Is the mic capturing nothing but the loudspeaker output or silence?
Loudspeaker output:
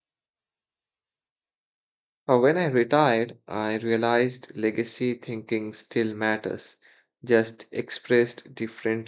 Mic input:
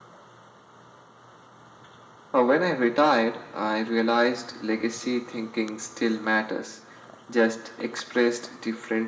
Yes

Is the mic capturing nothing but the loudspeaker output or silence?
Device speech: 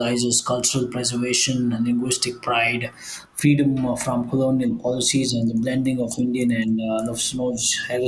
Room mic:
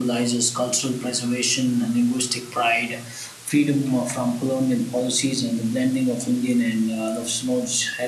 Yes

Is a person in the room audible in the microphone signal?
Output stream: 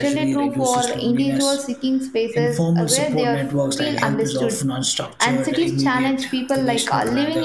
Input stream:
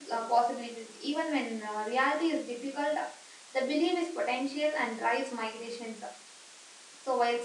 Yes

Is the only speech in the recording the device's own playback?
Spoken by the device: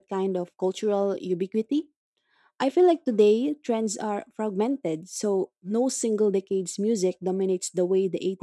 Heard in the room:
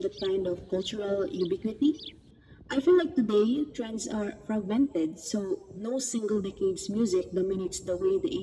Yes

